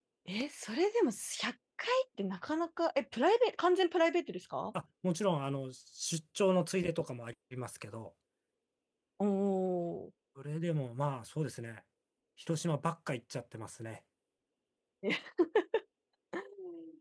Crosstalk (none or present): none